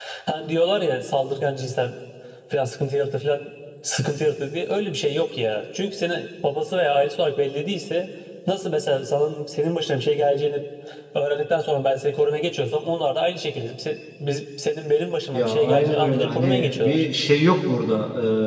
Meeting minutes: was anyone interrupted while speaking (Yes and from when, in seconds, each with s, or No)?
Yes, from 15.3 s